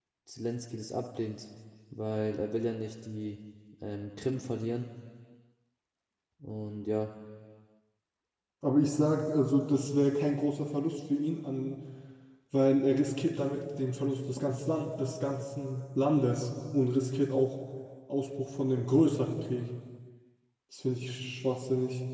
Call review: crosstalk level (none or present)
none